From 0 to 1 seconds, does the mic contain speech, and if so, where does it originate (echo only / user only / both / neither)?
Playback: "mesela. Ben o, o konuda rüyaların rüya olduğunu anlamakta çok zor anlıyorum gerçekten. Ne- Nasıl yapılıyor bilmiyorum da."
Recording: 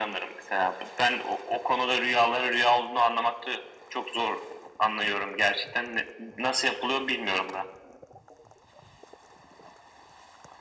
echo only